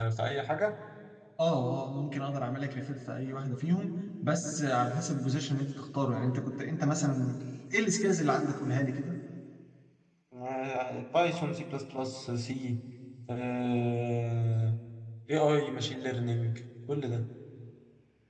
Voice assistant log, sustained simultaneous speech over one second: none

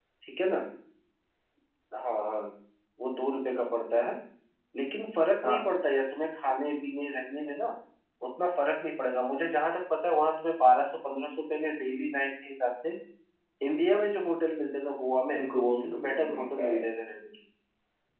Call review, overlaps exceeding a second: present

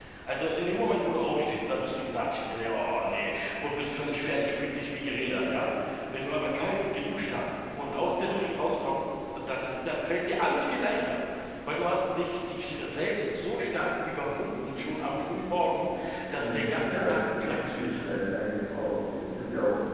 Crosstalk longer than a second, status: present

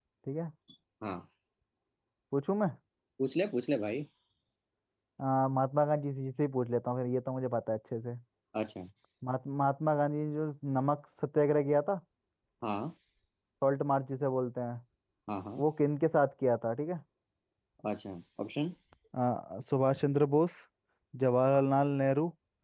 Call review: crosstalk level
none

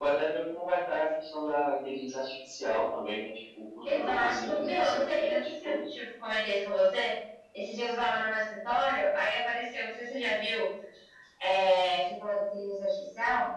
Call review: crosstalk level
present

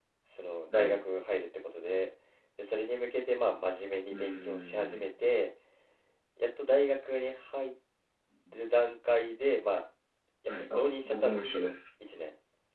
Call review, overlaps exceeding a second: present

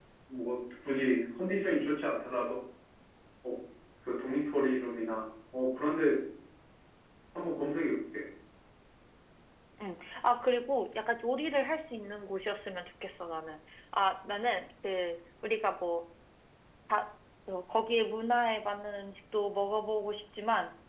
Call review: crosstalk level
none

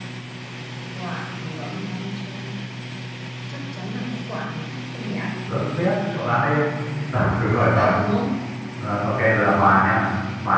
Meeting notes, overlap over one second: none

